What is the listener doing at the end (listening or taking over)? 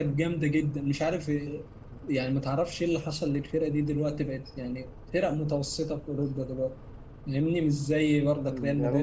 taking over